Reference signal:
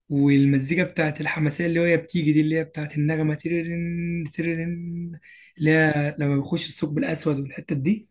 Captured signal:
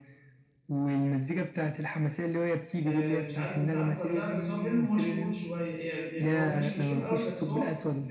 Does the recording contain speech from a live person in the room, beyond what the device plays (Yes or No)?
Yes